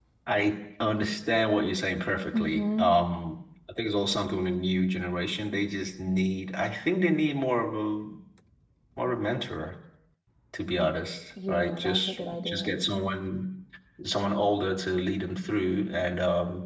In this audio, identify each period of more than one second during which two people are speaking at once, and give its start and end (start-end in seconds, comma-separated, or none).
11.5-12.7